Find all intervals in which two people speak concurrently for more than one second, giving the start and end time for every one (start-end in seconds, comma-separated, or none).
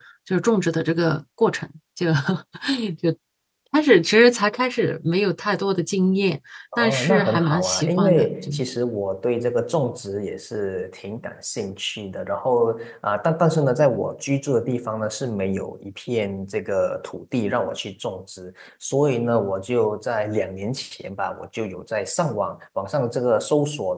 6.8-8.5